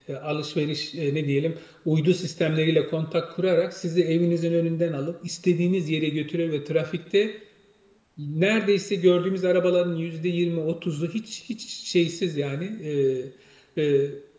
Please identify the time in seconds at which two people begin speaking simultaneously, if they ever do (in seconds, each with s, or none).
none